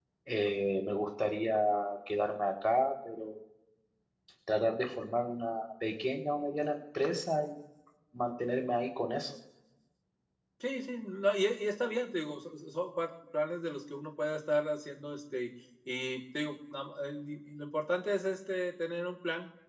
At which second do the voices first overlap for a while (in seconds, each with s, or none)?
none